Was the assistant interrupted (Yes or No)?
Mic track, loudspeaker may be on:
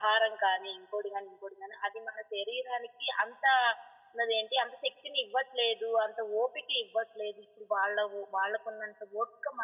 No